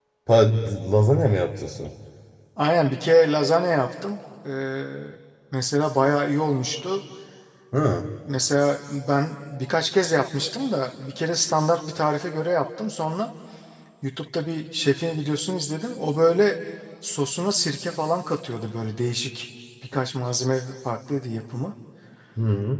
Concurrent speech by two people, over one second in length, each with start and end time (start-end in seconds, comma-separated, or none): none